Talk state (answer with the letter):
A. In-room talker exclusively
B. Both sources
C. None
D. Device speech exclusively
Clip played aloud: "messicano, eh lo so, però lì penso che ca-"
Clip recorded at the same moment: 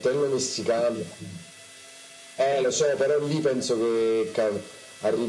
D